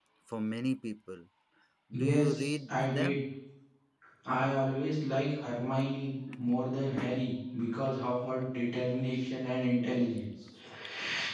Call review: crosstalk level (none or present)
present